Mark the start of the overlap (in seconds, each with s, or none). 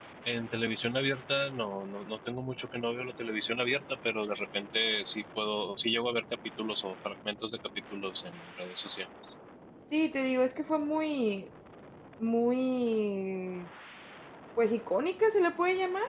none